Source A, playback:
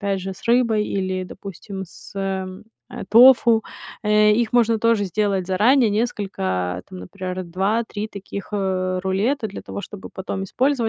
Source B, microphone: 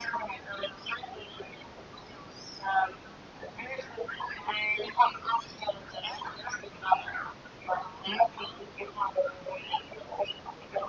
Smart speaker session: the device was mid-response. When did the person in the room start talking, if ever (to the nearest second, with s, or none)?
none